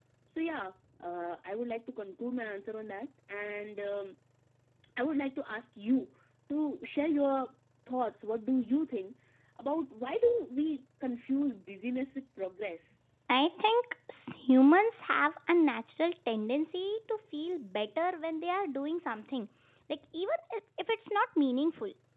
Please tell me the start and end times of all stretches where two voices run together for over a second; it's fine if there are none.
none

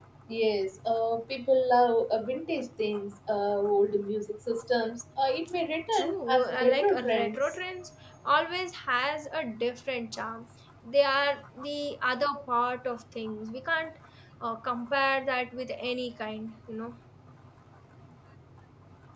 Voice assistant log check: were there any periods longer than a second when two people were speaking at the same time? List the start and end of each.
5.9-7.4

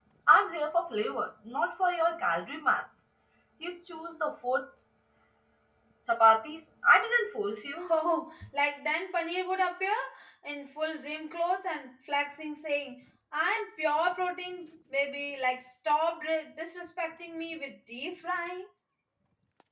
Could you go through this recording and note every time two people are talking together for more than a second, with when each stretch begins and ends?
none

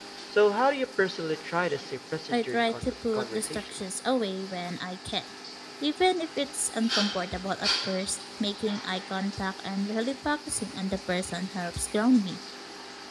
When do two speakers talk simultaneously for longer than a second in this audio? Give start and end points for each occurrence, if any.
2.3-3.7

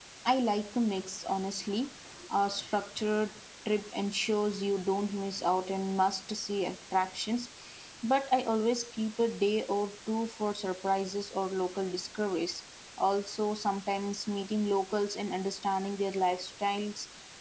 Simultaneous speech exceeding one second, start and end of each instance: none

